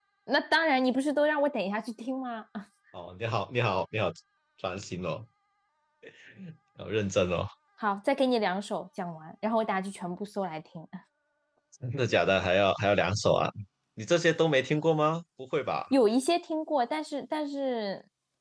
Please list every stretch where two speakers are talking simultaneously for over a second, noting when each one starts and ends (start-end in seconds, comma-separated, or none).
none